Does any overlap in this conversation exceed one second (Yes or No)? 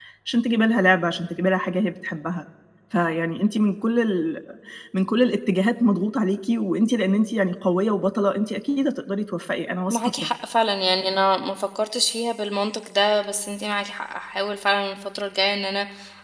No